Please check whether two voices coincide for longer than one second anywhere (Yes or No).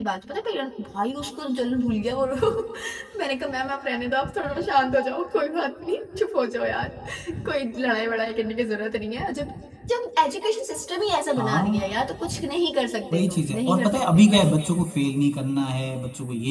Yes